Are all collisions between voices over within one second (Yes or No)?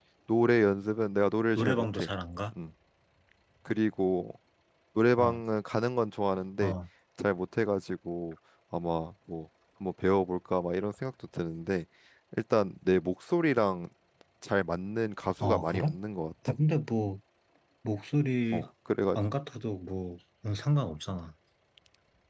Yes